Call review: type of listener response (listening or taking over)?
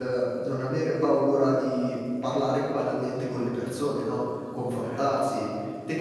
listening